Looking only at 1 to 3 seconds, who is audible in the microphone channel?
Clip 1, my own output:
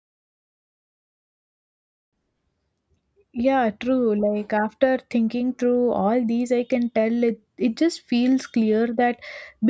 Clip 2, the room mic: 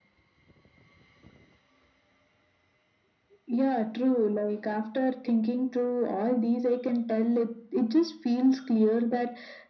neither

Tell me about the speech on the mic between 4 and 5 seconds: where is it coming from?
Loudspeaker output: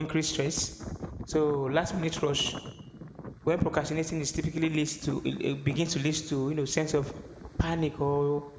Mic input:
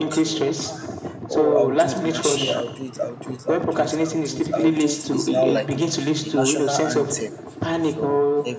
both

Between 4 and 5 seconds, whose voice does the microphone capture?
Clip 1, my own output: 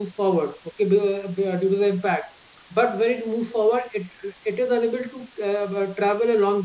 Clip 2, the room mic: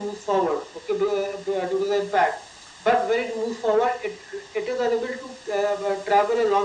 echo only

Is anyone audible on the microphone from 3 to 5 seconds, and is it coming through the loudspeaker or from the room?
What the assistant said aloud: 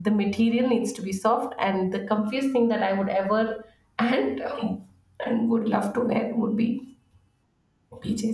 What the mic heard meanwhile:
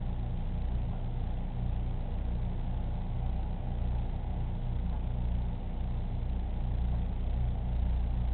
neither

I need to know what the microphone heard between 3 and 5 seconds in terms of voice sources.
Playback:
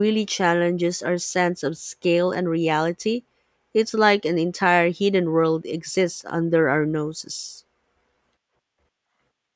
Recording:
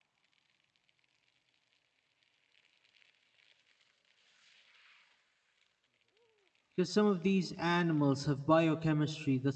neither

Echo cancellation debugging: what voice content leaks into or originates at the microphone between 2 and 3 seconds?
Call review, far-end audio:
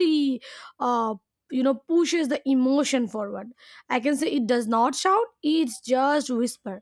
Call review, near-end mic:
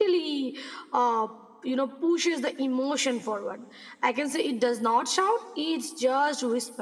echo only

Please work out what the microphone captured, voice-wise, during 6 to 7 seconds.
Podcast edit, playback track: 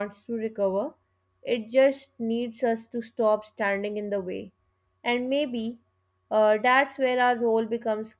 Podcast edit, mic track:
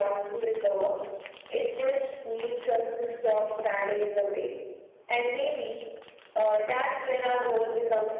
echo only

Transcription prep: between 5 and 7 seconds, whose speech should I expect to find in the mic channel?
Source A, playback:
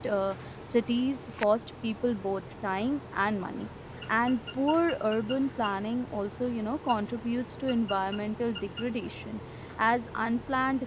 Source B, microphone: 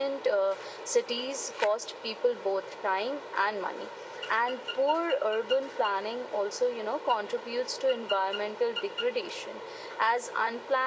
echo only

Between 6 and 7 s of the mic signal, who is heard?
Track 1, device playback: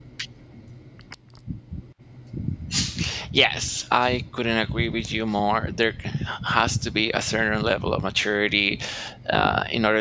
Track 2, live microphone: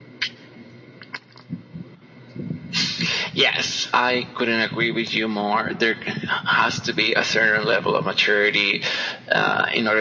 echo only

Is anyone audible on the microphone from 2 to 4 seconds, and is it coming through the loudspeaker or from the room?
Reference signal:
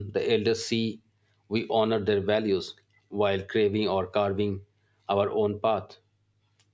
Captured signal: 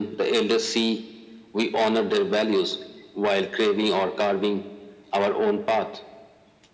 echo only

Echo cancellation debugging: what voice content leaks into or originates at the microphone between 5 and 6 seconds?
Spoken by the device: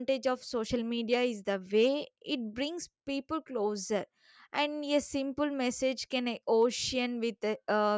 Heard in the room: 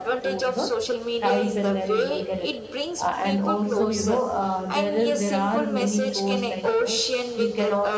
both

